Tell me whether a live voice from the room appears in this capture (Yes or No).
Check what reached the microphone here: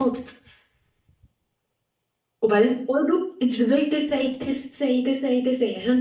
Yes